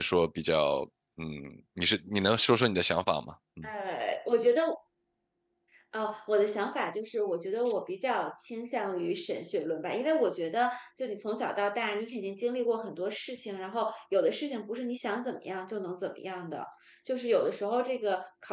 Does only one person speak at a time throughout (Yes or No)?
Yes